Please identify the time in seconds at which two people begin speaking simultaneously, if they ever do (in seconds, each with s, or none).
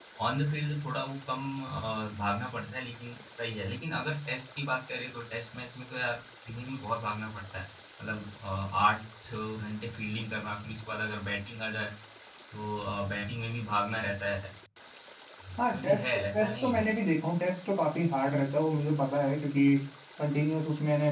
15.6 s